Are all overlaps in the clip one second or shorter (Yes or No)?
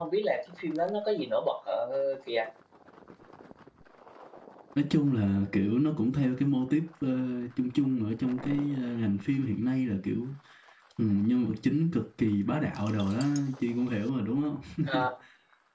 Yes